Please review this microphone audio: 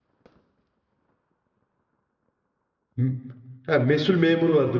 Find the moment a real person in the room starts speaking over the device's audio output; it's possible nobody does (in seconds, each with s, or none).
3.0 s